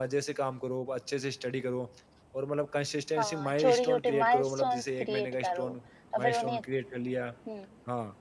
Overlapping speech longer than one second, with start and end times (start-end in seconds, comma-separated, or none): 3.2-5.7